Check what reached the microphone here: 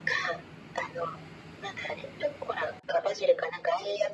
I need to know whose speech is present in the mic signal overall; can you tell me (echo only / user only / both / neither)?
echo only